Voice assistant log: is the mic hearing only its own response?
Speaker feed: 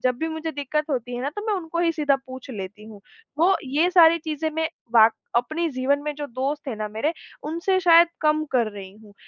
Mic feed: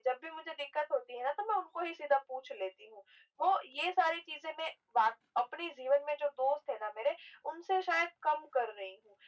Yes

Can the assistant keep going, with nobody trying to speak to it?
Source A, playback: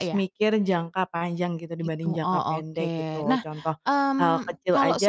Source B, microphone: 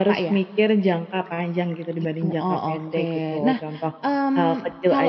Yes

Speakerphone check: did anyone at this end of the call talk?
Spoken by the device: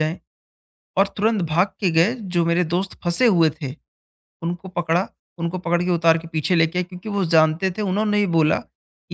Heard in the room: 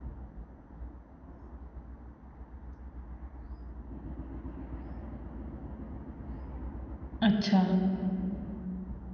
Yes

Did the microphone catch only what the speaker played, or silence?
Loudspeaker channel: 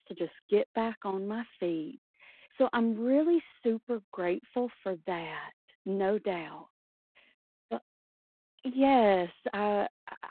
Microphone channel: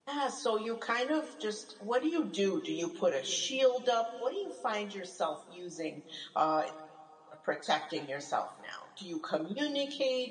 No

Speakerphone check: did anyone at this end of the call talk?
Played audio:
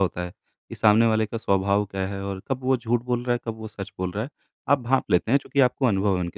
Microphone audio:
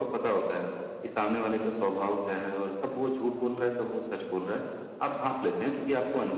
No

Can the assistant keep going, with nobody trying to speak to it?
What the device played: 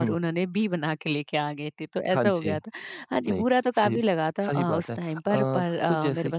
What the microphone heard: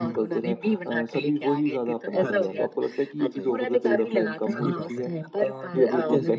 No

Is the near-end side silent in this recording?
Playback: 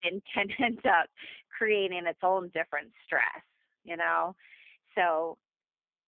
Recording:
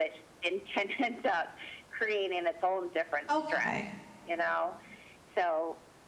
No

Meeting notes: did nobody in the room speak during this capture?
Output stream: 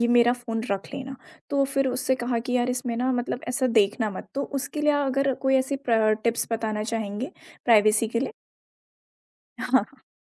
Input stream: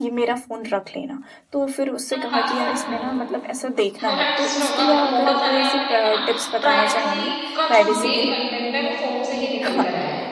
No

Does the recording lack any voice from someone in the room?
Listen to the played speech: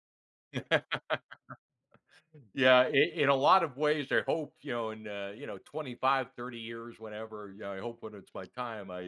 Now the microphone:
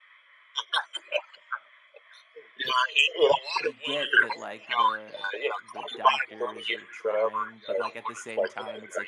No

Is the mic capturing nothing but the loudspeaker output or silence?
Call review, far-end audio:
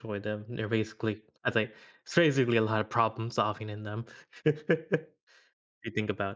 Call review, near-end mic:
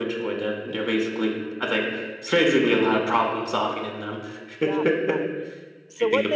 No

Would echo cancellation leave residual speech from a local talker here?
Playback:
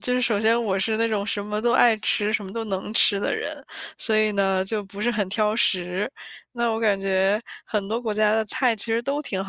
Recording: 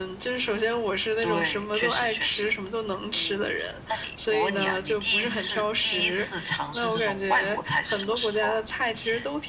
Yes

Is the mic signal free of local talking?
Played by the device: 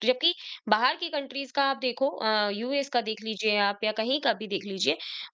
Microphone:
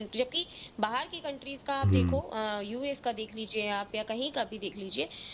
No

